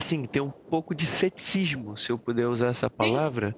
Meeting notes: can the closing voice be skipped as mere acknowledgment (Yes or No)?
Yes